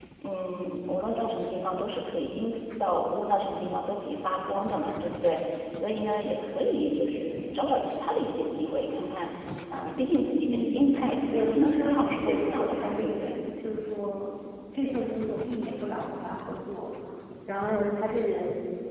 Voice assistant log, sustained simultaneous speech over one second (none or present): present